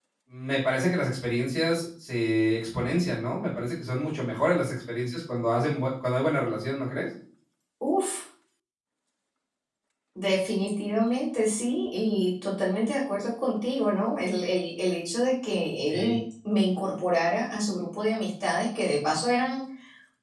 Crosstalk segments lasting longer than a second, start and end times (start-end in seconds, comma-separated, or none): none